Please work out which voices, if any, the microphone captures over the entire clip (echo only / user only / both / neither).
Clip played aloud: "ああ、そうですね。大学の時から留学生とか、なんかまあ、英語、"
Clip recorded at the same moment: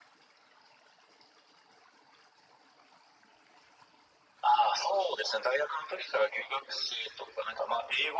echo only